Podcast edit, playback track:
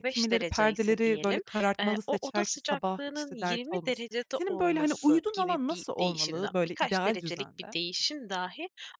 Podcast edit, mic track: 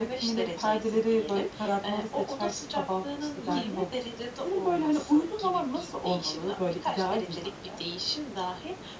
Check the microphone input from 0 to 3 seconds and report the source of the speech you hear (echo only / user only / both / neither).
echo only